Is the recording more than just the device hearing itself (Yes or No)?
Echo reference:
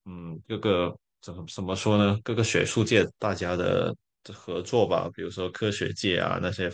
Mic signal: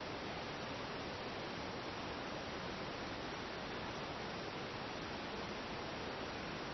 No